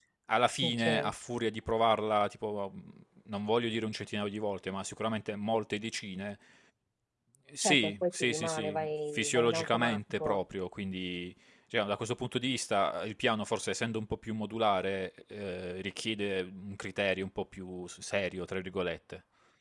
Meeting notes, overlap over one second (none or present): present